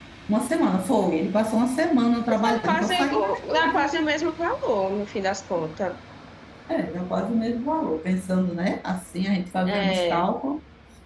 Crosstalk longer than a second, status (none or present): present